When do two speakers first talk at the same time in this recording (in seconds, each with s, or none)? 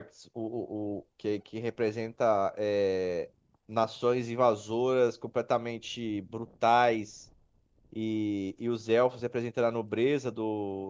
none